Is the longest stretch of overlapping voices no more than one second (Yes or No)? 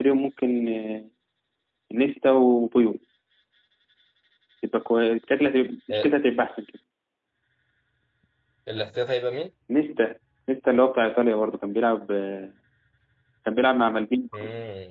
Yes